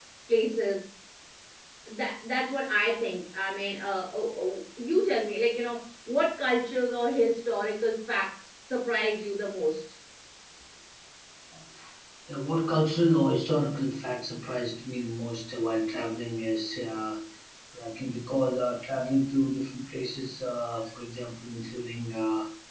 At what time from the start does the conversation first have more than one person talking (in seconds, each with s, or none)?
none